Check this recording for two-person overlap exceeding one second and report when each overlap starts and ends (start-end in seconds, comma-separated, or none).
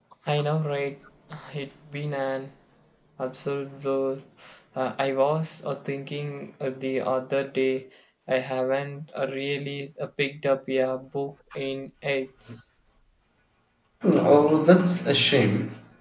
none